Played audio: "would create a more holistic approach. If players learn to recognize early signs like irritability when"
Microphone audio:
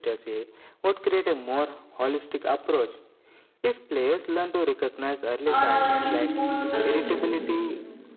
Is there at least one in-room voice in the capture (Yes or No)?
Yes